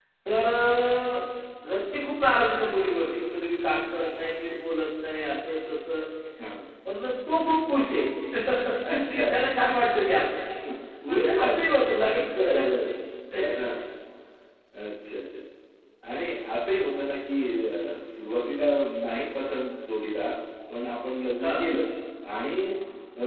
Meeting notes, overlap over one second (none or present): none